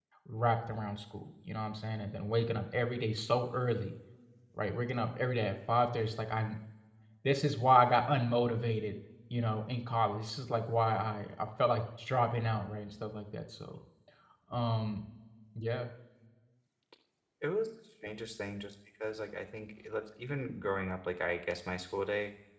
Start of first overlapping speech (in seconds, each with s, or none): none